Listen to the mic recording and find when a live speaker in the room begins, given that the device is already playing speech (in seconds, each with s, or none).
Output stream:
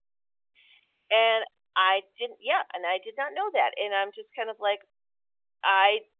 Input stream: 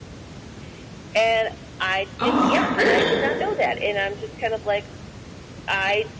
2.2 s